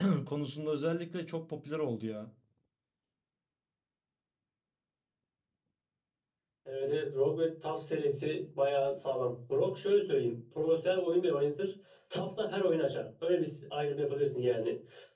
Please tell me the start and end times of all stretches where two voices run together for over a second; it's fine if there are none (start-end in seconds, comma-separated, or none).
none